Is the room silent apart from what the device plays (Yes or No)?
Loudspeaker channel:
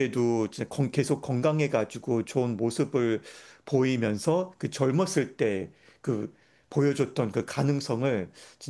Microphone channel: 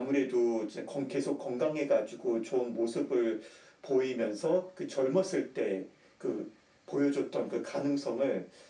Yes